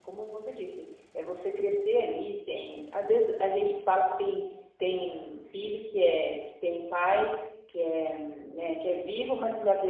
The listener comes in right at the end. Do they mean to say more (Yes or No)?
No